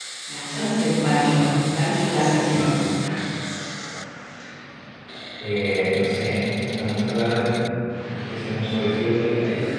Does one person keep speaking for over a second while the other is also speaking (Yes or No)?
No